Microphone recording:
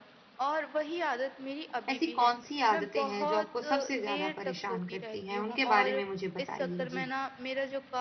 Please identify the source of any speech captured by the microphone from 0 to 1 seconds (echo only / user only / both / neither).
echo only